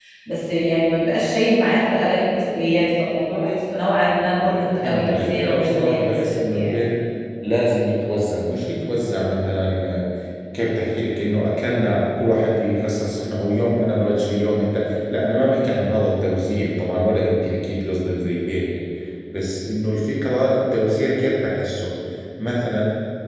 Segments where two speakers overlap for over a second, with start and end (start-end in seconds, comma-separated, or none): 4.8-6.7